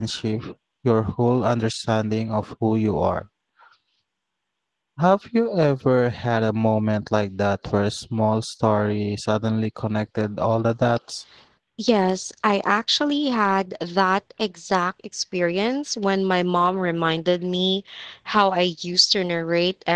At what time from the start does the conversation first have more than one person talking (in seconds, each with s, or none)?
none